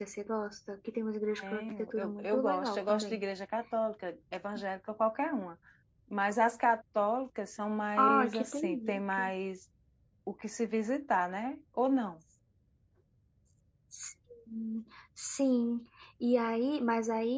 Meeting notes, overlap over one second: present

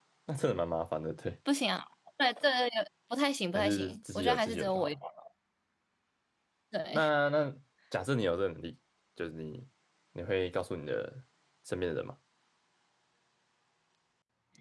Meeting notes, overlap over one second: present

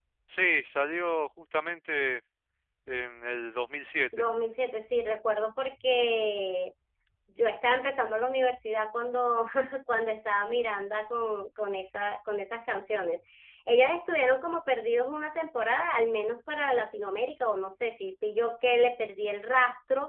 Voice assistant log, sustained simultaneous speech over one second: none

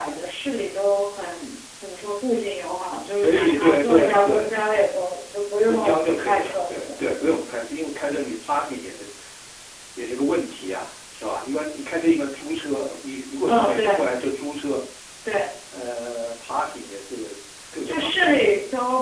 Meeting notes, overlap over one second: present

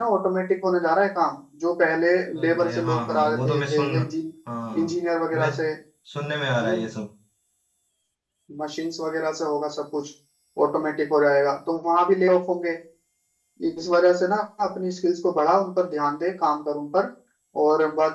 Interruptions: present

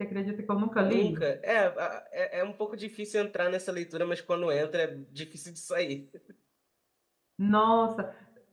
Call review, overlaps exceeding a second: none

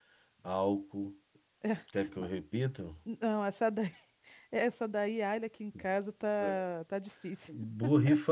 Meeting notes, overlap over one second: none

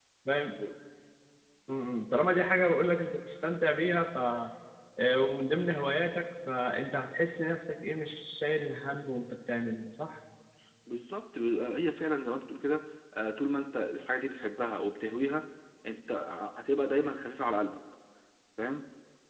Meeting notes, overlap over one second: none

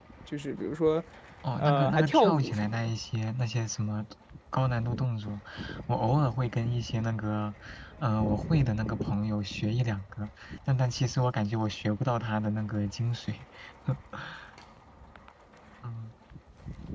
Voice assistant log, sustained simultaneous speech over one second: present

